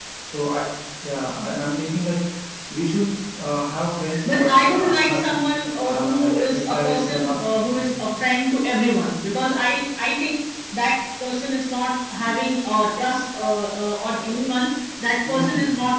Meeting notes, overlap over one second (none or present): present